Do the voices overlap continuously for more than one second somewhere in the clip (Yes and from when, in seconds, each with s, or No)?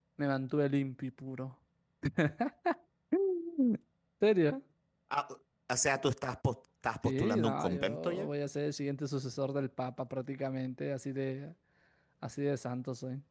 Yes, from 7.0 s